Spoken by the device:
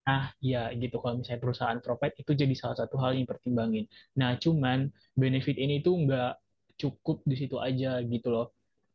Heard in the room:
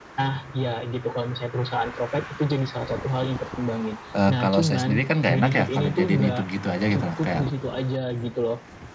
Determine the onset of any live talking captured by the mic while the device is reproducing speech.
4 s

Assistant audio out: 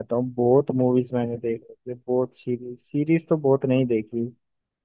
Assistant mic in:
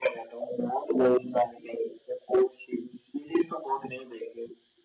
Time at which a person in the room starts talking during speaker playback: none

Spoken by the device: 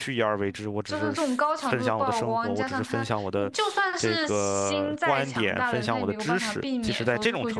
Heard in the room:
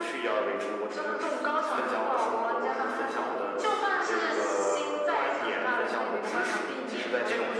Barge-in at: none

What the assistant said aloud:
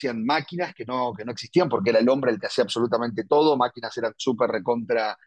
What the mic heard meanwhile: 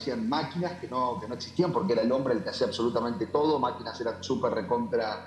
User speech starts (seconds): none

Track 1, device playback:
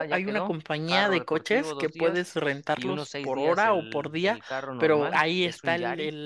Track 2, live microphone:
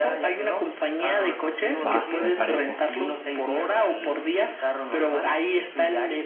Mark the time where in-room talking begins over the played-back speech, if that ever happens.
2 s

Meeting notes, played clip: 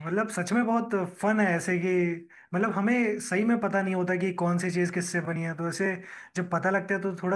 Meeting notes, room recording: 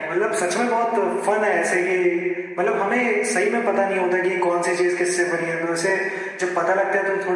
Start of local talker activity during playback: none

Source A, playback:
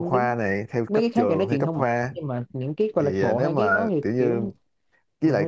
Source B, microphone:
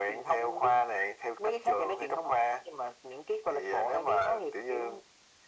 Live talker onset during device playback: none

